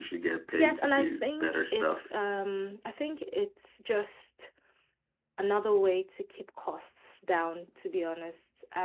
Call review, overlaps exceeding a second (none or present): present